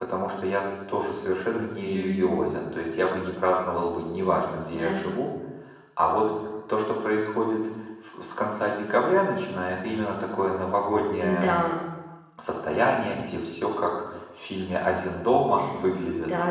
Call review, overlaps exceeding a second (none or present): none